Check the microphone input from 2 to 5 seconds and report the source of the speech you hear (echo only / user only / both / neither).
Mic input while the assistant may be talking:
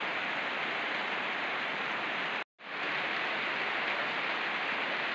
neither